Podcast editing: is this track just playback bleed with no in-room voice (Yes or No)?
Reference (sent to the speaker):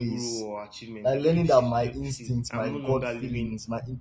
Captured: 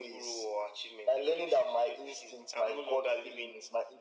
Yes